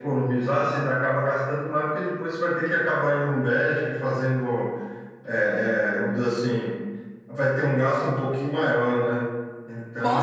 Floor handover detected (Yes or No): Yes